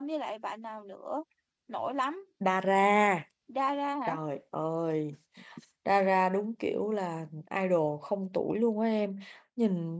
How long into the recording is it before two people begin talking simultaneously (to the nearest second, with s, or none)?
none